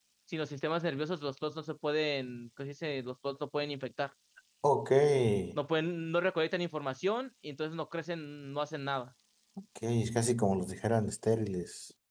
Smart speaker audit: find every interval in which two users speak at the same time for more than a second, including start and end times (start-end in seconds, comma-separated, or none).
none